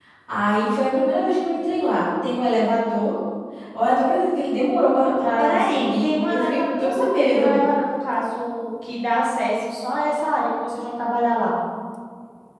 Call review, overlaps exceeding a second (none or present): present